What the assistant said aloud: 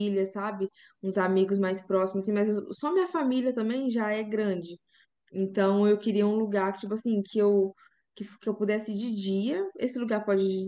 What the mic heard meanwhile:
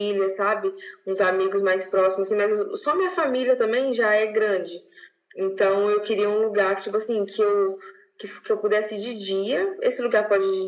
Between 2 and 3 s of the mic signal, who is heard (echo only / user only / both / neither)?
echo only